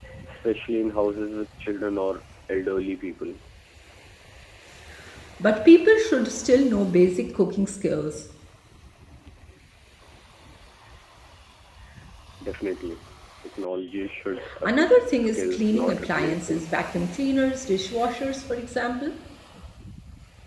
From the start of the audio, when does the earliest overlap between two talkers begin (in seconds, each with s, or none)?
14.4 s